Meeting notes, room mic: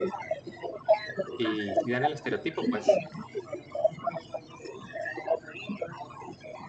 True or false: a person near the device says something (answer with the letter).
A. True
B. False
A